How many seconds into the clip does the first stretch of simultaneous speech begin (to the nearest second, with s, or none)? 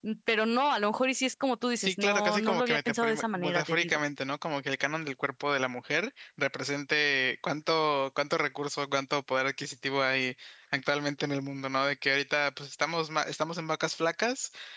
2 s